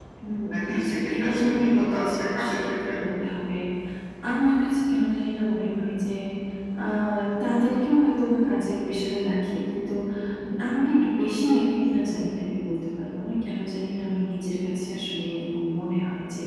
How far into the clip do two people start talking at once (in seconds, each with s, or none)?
0.8 s